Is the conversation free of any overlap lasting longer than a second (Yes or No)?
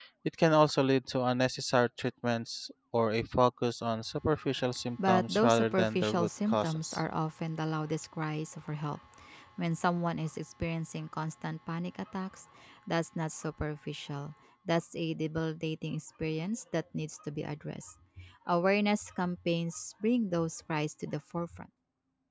No